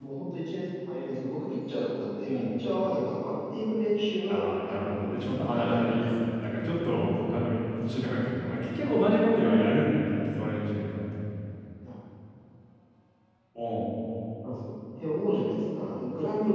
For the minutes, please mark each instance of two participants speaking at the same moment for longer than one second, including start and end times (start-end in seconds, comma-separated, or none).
4.3-6.1